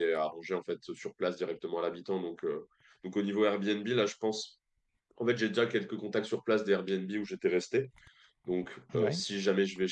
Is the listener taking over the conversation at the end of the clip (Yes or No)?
No